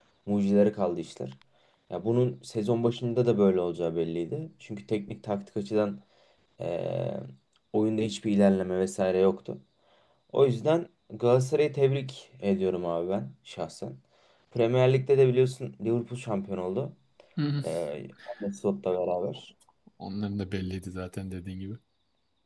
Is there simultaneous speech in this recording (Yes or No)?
No